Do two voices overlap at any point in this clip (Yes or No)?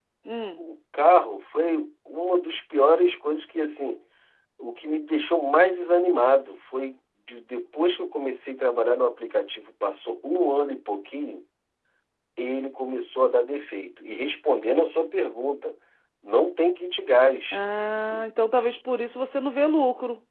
No